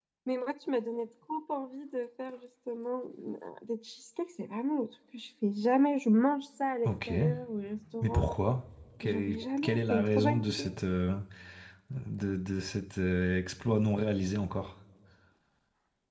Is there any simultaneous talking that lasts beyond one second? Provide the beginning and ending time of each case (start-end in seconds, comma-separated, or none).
9.0-10.7